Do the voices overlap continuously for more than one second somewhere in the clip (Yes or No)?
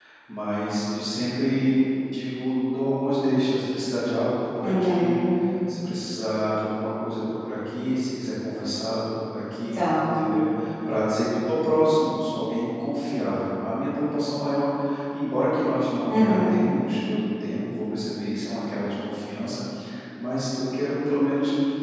No